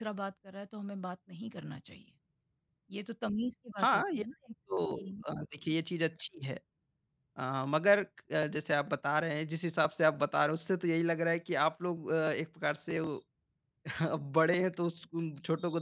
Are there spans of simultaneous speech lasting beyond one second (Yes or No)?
No